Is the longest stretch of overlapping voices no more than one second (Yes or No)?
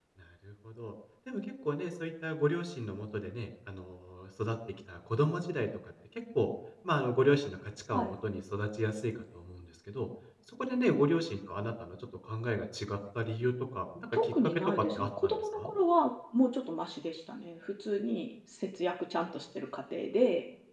No